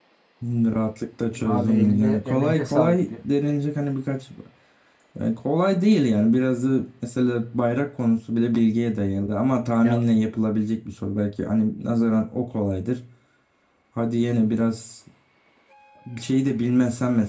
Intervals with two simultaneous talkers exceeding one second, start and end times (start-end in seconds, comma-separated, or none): 1.4-3.2